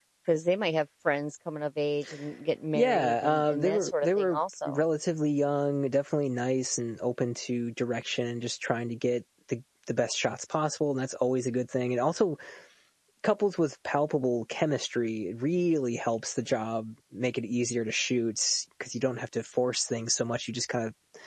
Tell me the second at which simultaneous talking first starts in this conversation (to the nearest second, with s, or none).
3 s